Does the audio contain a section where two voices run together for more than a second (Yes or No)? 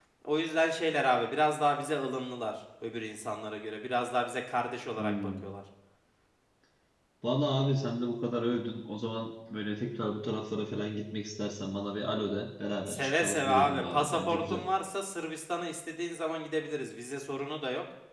Yes